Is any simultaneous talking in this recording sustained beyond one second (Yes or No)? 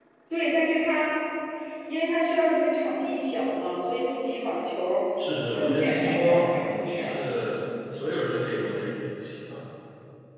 Yes